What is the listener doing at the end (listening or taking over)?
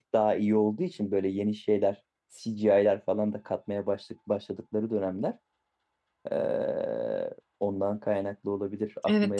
taking over